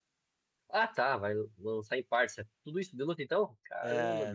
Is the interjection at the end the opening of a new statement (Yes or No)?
Yes